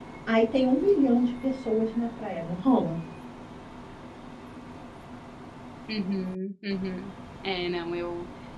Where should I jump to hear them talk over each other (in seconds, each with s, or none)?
none